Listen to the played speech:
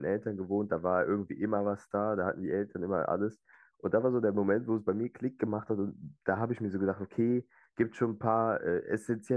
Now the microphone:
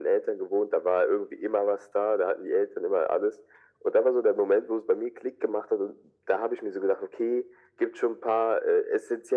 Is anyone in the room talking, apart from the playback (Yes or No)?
No